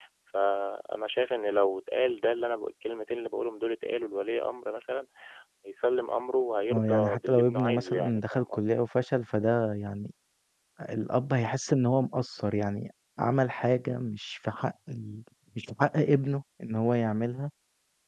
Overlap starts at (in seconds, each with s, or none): 6.7 s